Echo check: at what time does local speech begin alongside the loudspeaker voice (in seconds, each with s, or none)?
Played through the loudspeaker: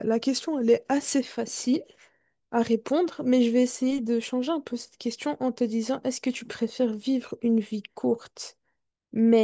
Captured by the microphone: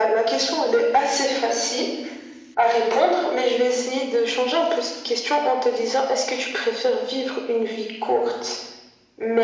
none